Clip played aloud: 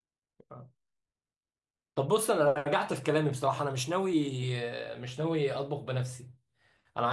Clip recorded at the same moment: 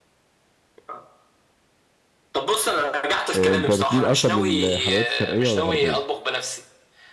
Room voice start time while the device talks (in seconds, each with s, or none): 3.3 s